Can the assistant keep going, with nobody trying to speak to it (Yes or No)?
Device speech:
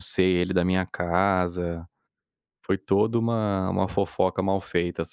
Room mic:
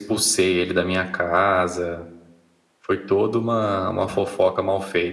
Yes